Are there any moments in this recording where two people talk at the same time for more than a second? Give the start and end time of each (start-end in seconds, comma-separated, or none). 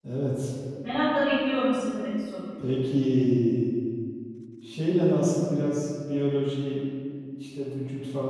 none